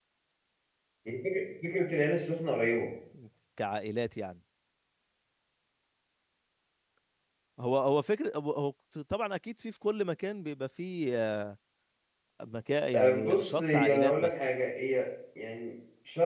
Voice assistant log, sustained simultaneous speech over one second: present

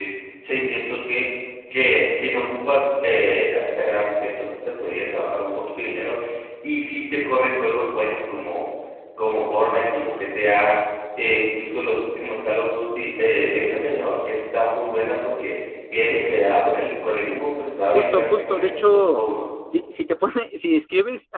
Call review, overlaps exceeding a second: present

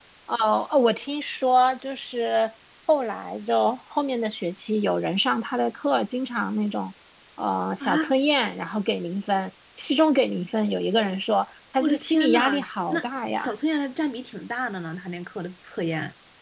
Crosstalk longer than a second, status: present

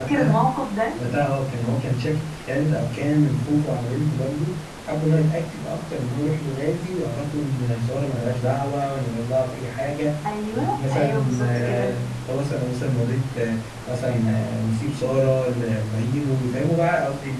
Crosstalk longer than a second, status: present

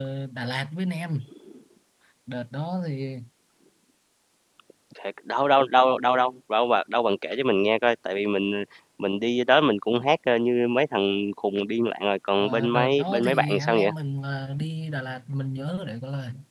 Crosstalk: present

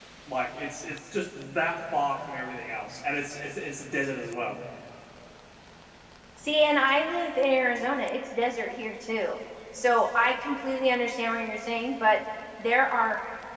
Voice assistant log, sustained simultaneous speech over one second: none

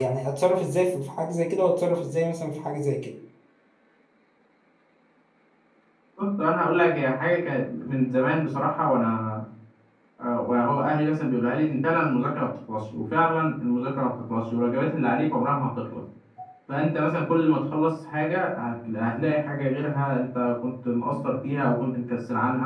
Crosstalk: none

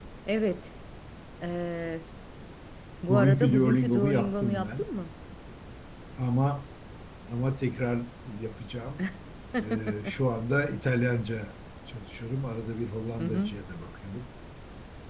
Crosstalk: present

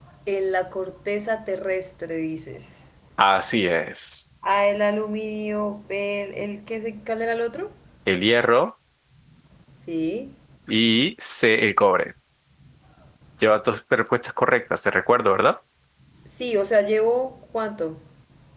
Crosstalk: none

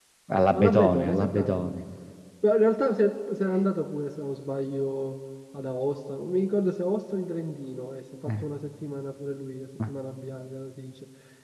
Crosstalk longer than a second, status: present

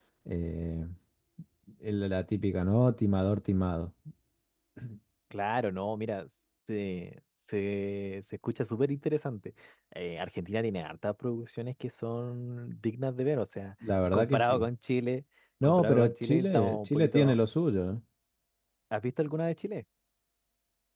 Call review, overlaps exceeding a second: present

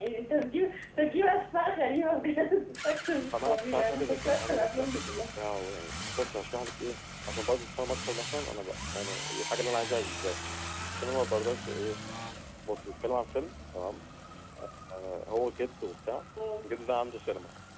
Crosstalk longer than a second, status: present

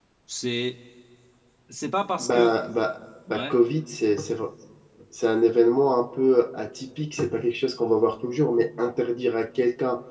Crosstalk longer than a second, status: none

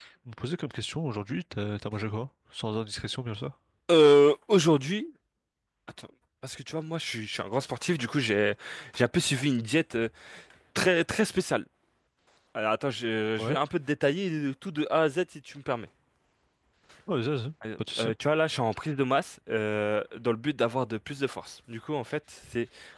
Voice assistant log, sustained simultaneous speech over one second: none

